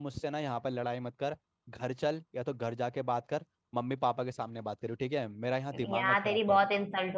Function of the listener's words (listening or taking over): taking over